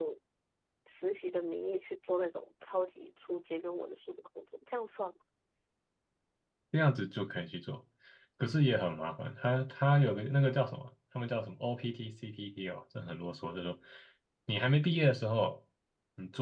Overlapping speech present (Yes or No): No